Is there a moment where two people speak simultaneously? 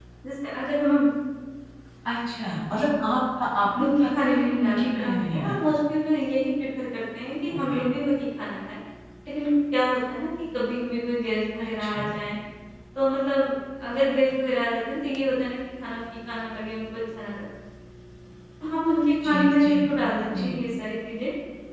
Yes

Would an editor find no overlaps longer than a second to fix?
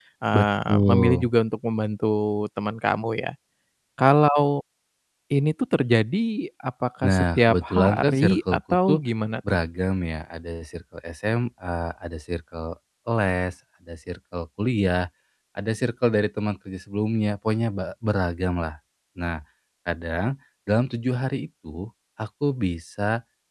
No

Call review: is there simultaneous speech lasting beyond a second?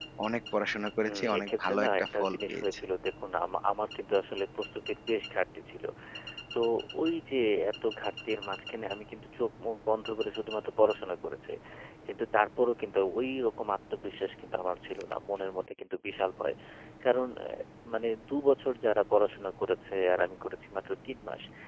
Yes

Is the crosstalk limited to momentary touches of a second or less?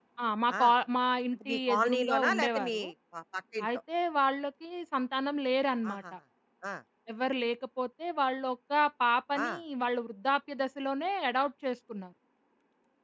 No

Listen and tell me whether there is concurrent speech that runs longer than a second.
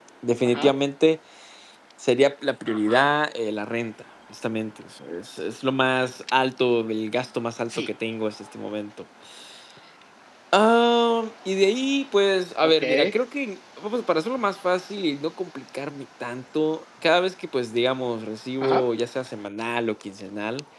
No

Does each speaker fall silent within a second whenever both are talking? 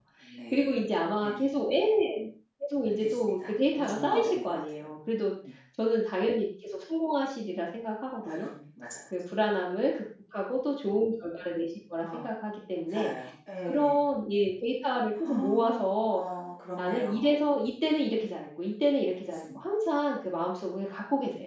No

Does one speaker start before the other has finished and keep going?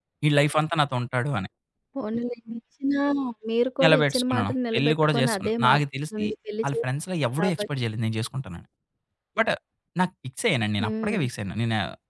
Yes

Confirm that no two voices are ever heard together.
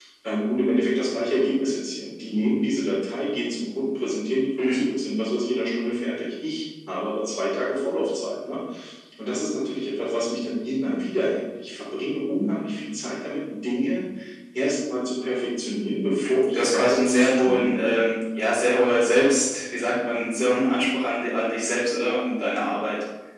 No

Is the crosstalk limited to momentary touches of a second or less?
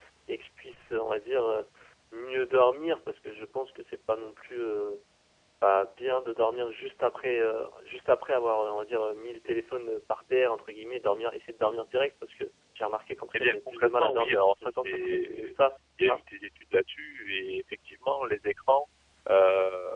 No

